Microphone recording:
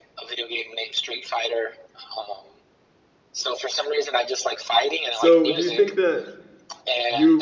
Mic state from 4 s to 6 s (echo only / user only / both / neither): both